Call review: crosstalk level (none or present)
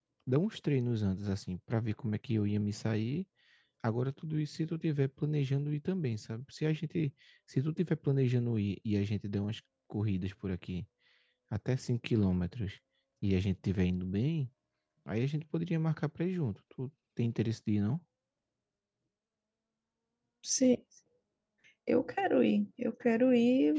none